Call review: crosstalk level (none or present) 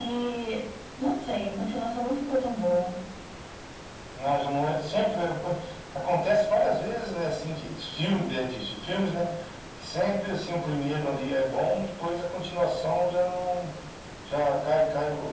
none